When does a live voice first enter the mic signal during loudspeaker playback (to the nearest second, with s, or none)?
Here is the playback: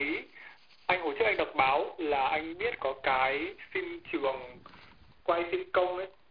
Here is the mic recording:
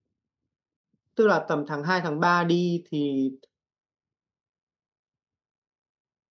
1 s